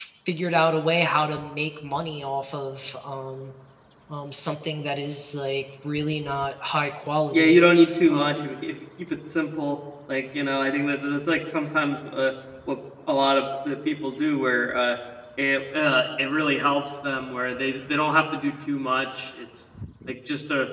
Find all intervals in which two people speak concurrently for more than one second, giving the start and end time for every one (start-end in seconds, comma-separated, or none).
none